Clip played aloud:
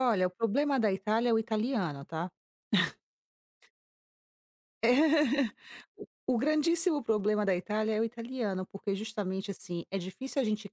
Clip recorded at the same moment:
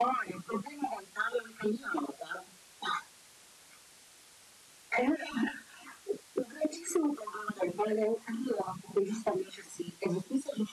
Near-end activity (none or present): none